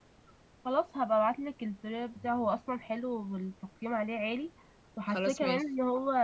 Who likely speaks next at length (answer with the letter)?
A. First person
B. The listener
A